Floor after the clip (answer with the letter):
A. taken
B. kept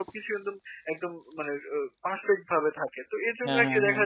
B